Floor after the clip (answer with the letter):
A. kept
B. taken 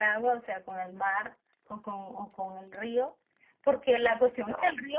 A